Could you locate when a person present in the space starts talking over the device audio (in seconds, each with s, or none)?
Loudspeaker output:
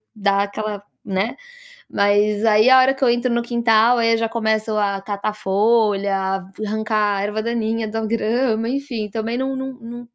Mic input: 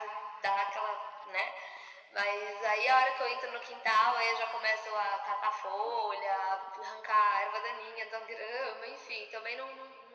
none